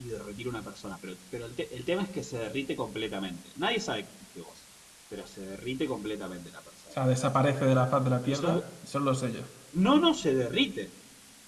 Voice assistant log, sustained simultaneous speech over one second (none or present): none